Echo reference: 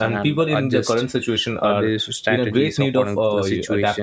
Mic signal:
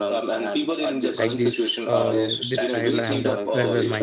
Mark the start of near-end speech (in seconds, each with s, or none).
1.1 s